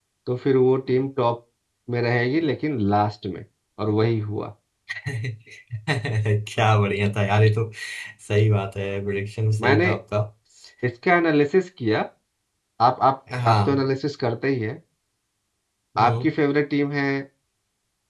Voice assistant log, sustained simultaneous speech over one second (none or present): none